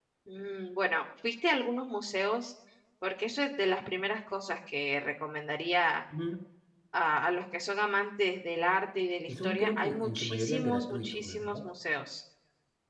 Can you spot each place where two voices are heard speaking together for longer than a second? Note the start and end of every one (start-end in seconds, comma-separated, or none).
9.3-11.4